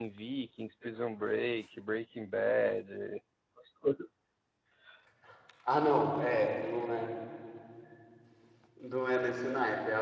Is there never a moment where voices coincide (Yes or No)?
Yes